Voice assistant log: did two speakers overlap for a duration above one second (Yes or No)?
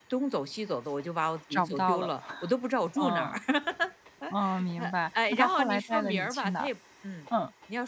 Yes